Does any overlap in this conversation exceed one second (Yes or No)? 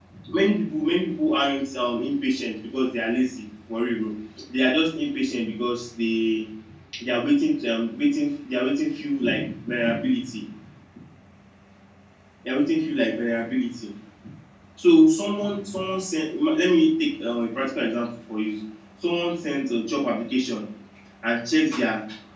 No